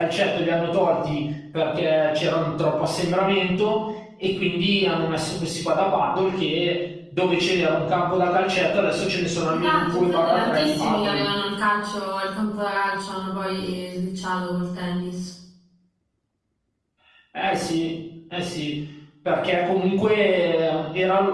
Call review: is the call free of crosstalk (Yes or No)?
No